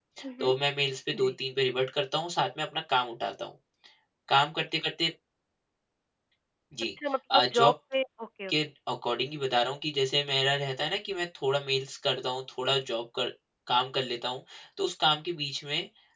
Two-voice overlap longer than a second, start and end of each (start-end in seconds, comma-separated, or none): none